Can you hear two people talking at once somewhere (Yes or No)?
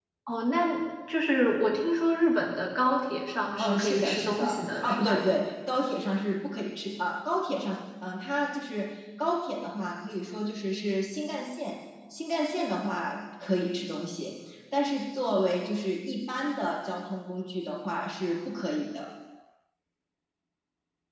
Yes